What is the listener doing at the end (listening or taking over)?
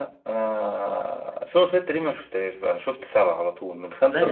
taking over